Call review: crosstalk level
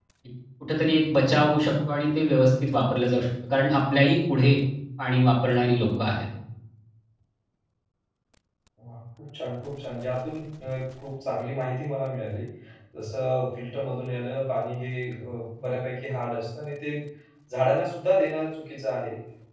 none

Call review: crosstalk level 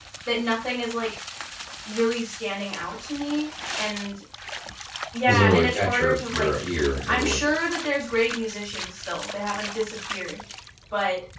present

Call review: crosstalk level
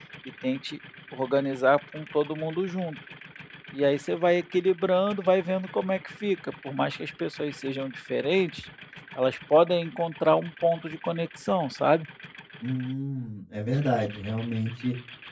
none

